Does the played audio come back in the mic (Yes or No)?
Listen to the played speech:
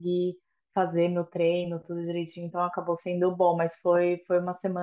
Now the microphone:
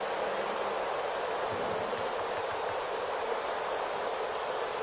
No